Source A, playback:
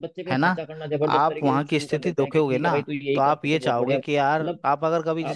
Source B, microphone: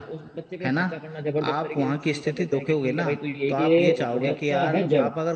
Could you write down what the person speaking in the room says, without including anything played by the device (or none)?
कि बच्चा है जड़